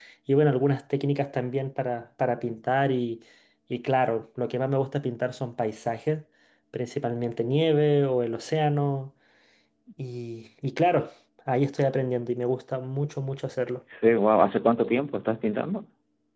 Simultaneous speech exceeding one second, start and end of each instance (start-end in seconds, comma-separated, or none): none